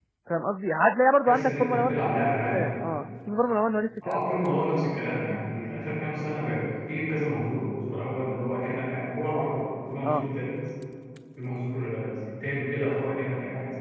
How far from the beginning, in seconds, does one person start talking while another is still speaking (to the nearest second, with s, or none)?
1 s